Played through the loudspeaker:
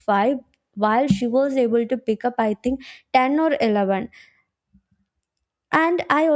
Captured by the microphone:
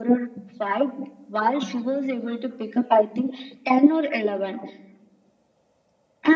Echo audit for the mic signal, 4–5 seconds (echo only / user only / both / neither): echo only